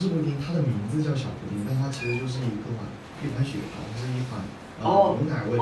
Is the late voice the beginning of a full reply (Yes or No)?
Yes